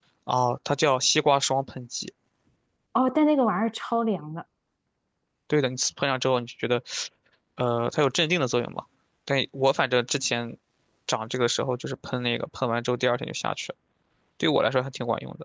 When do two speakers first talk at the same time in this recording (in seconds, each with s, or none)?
none